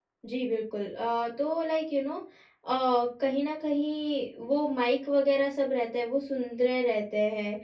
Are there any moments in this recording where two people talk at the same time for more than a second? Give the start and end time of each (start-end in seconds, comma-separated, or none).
none